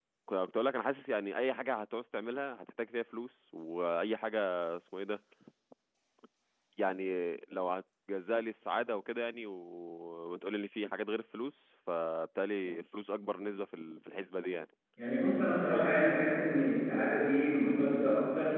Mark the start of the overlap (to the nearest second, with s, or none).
none